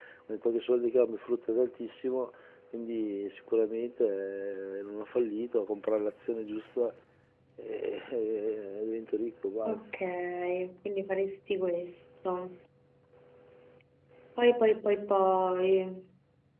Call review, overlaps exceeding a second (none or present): none